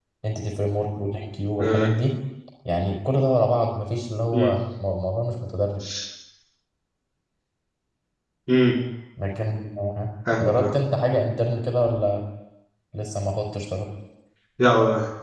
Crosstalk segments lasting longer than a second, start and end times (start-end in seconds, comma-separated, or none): none